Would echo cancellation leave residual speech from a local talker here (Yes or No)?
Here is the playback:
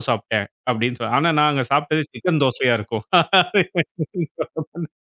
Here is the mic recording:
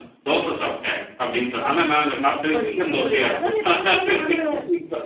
Yes